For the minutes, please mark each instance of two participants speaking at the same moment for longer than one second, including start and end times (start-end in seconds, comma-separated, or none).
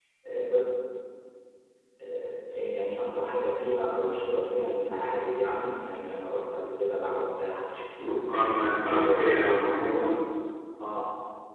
8.8-10.1